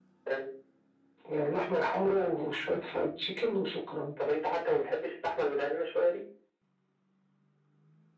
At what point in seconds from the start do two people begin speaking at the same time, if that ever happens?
none

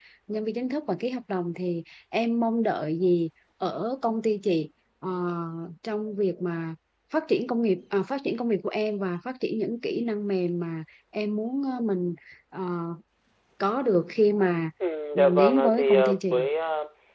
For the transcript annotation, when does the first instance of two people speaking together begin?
15 s

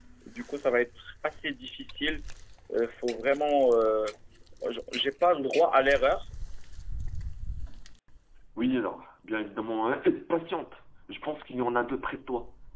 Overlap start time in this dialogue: none

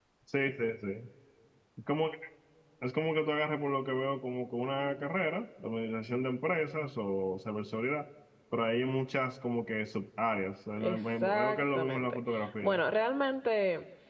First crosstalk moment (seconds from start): 11 s

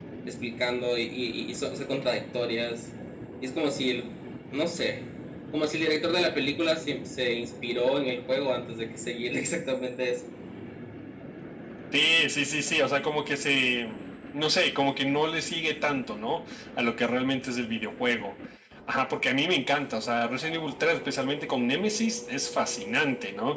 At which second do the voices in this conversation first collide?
none

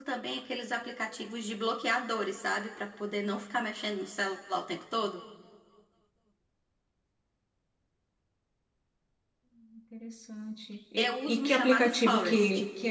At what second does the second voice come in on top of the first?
11 s

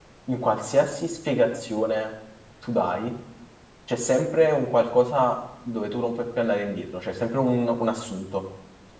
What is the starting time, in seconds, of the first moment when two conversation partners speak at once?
none

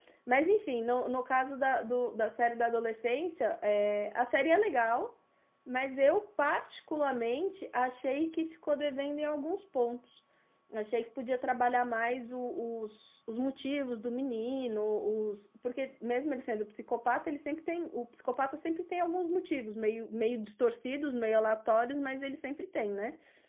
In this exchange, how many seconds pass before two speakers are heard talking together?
none

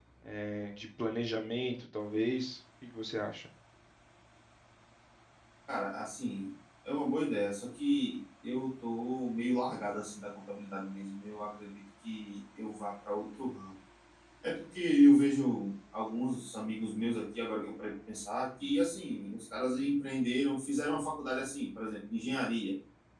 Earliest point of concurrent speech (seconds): none

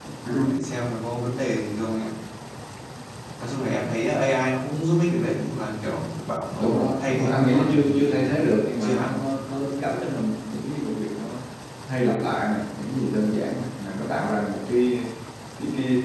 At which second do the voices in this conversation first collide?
7 s

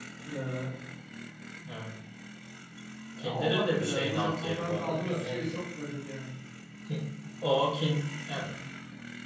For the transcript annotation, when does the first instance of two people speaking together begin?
3 s

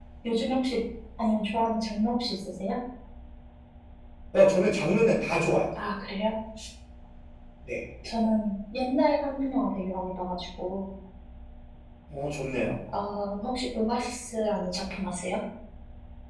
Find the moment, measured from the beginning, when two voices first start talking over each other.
none

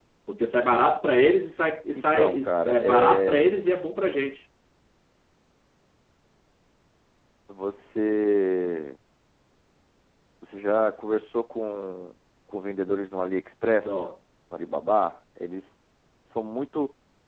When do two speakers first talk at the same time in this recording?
2 s

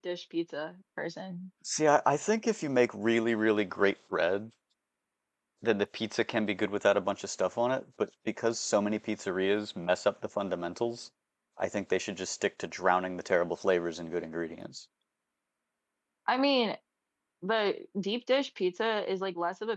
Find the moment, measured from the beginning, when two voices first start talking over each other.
none

